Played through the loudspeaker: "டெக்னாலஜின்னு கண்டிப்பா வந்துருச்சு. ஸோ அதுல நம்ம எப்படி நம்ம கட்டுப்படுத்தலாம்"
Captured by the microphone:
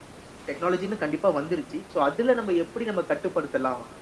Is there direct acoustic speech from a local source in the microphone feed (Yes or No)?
No